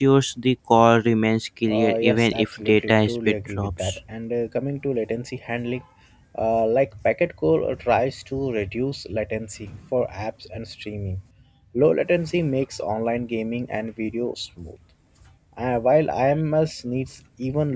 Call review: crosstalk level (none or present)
present